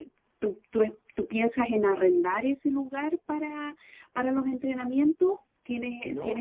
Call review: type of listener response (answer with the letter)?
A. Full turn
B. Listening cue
A